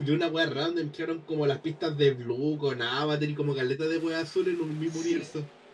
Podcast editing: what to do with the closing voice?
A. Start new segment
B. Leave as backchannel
A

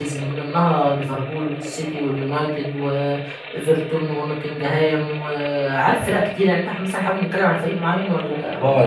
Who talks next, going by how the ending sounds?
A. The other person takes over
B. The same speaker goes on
A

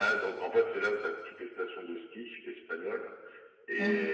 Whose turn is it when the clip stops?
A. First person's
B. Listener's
A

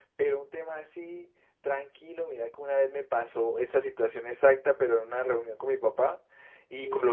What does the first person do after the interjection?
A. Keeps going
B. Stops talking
A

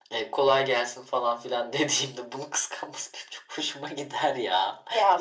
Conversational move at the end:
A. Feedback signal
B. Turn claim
B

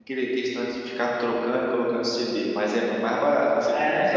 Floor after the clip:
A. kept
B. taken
B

